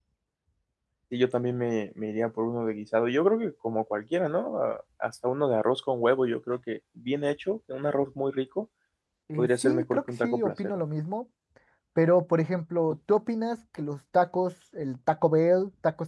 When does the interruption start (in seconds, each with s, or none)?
9.4 s